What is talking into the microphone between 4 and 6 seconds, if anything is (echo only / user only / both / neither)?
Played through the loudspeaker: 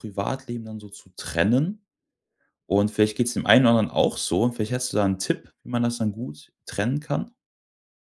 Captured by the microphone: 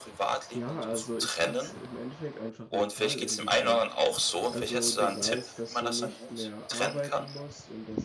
both